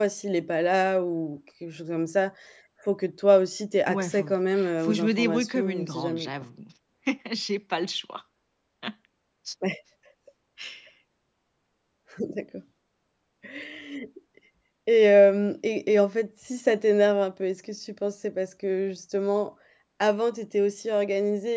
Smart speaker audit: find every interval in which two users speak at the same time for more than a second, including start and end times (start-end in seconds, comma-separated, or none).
4.8-6.3